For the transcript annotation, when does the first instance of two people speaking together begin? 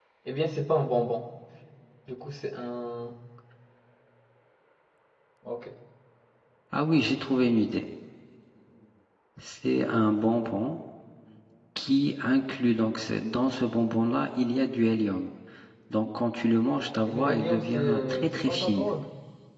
17 s

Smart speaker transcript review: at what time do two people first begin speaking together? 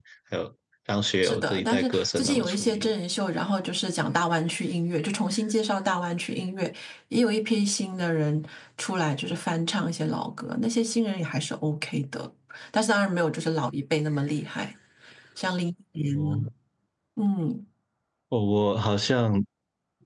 1 s

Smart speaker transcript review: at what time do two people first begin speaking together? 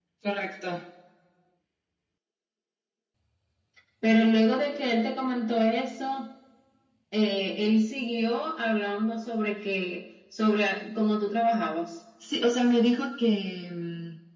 none

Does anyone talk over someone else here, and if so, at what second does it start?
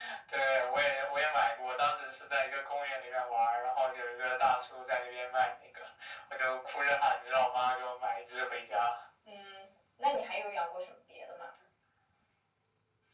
none

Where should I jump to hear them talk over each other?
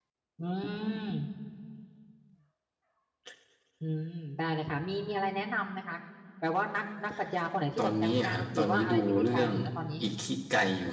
8 s

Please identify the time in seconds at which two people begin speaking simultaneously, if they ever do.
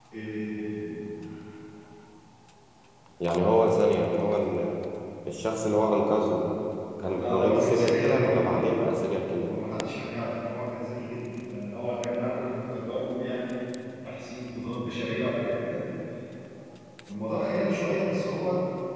7 s

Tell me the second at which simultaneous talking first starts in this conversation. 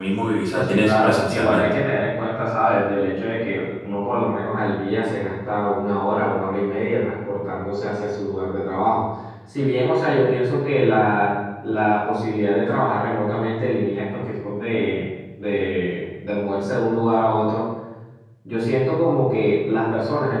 1 s

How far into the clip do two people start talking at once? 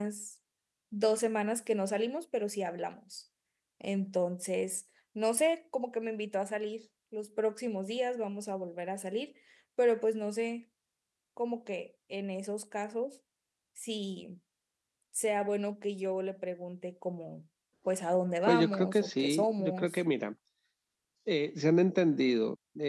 18 s

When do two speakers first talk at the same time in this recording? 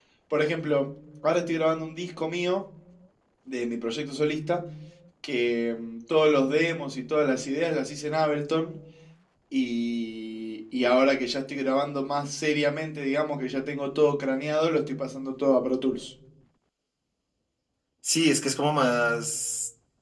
none

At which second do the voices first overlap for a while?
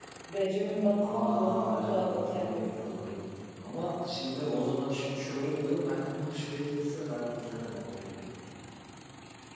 1 s

